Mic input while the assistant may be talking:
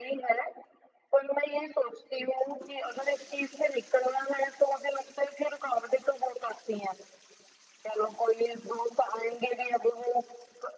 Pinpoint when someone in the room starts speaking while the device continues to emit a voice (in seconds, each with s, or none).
none